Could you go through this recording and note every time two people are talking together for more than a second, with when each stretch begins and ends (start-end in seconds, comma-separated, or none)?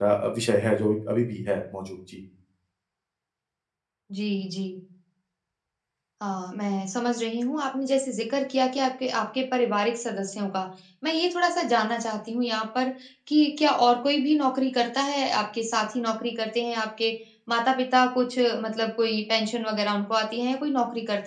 none